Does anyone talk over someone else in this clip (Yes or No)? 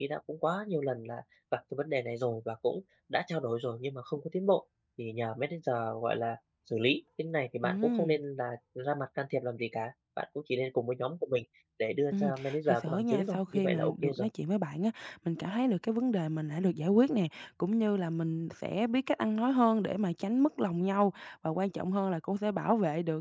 Yes